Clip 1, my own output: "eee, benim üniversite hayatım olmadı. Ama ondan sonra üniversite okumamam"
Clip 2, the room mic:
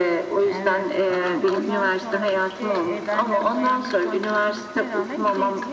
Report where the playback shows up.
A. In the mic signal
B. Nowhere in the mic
A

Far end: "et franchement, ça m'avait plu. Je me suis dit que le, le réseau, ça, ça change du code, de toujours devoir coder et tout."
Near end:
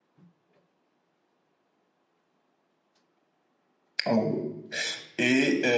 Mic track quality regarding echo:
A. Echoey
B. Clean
B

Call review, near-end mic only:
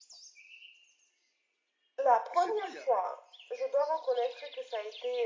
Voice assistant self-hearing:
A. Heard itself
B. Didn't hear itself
A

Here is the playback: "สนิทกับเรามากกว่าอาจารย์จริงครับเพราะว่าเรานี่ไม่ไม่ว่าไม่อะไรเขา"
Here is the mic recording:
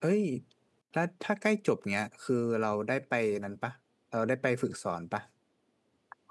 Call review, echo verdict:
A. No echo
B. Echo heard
A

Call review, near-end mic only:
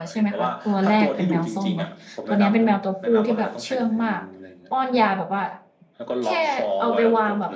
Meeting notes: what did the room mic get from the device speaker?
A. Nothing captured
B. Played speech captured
B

